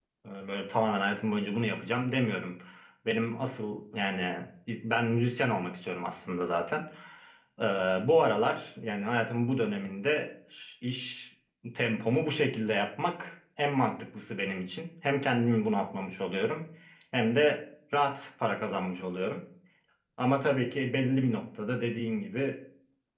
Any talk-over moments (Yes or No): No